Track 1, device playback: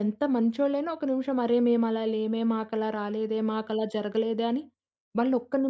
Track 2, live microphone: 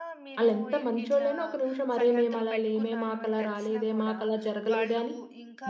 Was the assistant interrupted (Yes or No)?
Yes